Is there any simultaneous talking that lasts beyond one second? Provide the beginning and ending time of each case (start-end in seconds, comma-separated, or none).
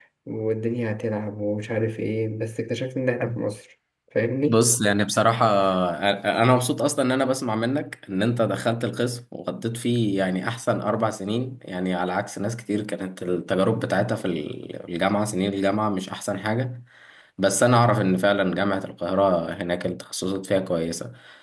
none